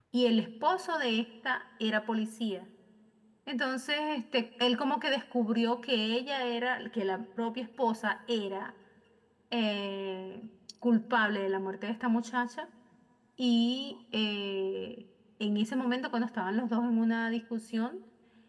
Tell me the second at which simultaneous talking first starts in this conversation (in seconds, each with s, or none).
none